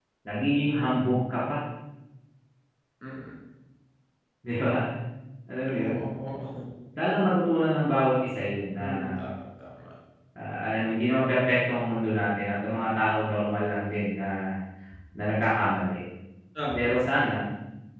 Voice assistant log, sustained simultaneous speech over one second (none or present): none